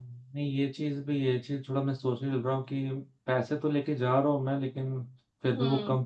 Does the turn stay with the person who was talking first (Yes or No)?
Yes